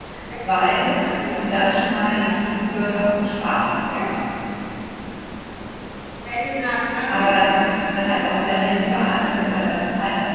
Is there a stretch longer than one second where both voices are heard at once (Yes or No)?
Yes